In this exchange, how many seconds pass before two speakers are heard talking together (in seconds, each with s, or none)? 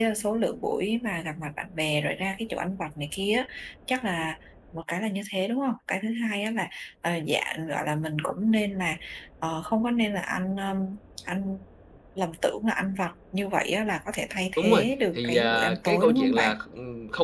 14.6 s